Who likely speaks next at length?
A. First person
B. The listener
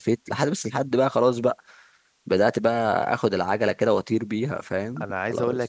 B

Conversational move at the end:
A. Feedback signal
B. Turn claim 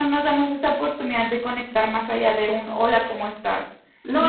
B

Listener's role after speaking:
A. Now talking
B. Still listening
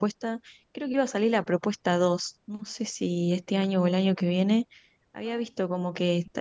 B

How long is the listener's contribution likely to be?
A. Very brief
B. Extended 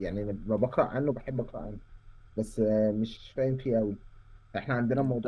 A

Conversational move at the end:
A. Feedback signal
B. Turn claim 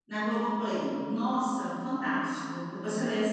A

